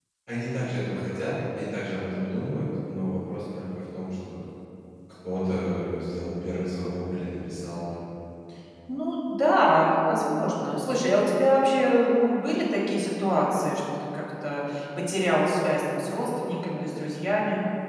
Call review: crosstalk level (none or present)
none